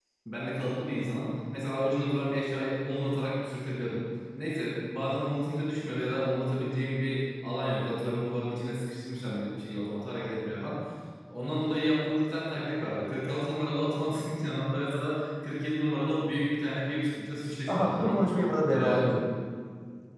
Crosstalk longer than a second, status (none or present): none